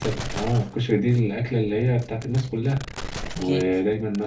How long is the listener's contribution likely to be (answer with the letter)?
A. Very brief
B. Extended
A